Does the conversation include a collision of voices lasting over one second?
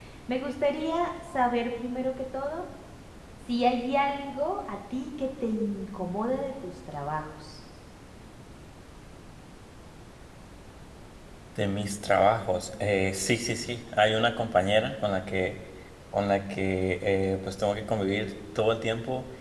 No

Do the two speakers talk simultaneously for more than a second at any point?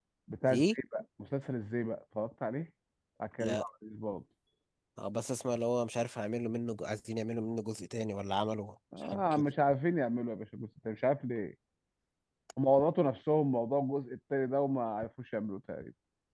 No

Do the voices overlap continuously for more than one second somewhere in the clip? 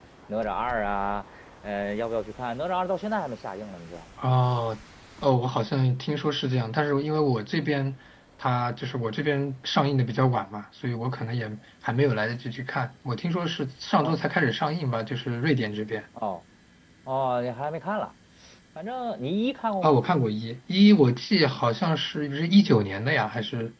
No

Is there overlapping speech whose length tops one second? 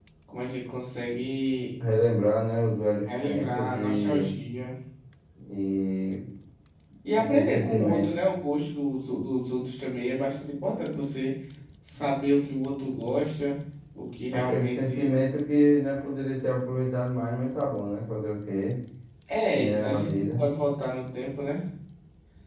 Yes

